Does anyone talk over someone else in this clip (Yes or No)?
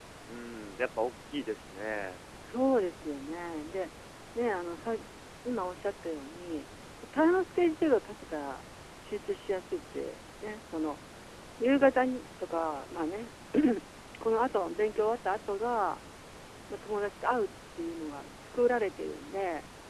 No